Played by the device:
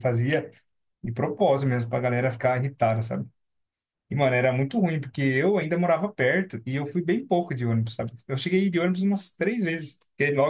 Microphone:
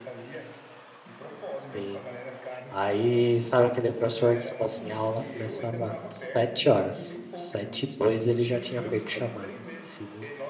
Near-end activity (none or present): present